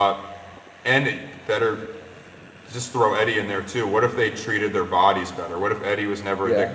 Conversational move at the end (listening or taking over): listening